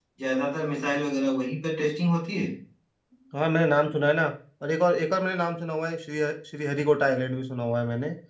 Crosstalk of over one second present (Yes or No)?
No